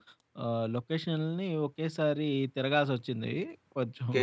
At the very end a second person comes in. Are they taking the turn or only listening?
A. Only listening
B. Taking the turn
B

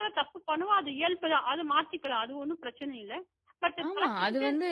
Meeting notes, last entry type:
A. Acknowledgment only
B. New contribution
B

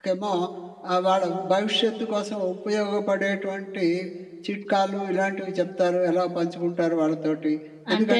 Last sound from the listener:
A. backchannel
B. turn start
A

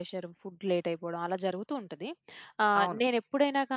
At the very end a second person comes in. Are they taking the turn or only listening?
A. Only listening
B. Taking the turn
A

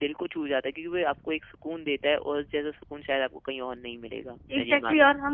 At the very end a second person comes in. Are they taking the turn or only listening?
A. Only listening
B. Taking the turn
B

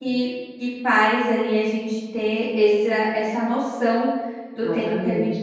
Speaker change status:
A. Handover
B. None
B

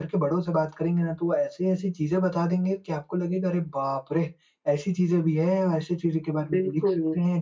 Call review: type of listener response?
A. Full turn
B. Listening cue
B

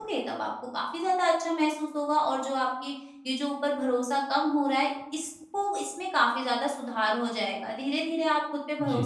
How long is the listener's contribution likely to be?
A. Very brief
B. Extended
A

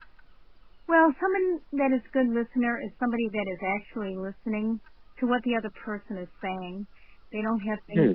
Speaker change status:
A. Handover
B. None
B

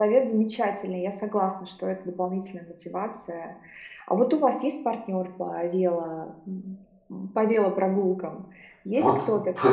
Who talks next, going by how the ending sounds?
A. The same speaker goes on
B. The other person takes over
B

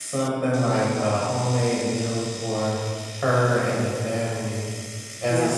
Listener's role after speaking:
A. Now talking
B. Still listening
B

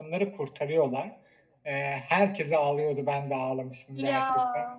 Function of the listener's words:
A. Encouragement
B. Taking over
A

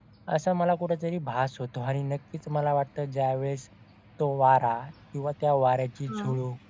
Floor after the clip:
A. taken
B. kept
B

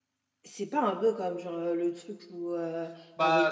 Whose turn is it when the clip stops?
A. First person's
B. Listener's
A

